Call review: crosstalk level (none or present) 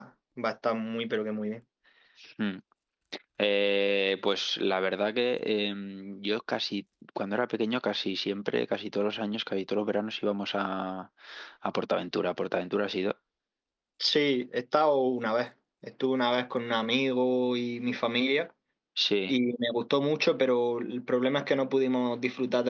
none